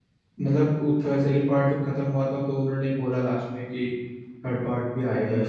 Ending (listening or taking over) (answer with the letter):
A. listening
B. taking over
B